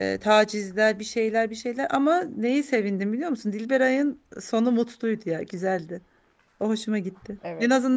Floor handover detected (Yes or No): No